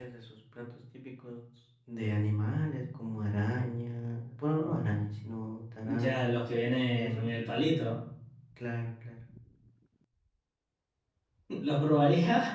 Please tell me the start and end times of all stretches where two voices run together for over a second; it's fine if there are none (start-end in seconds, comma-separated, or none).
5.8-7.3